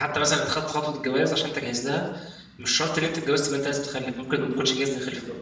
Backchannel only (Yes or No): No